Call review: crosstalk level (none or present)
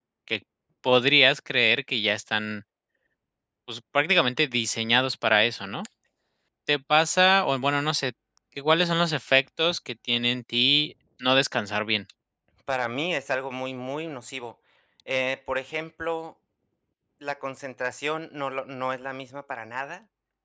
none